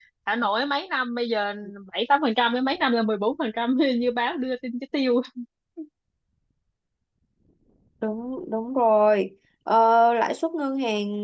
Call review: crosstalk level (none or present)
none